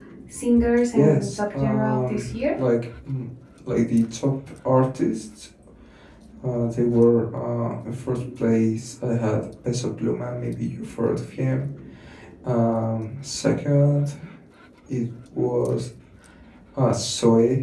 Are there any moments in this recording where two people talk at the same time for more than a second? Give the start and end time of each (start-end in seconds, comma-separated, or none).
0.9-2.4